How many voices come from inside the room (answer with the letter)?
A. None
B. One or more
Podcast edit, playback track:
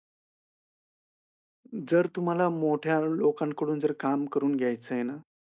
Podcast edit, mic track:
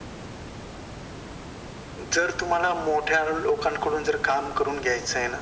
A